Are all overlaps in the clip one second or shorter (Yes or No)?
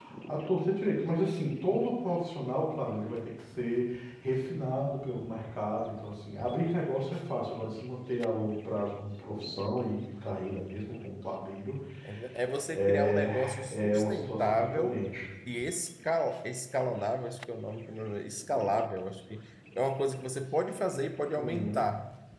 No